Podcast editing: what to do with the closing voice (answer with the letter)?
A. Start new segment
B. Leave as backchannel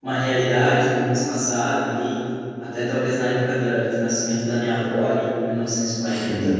B